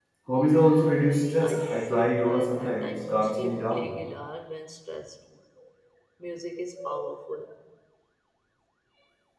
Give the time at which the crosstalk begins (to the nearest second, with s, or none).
1 s